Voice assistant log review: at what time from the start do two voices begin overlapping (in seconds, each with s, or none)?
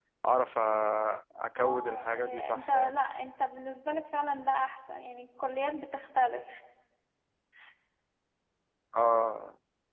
1.6 s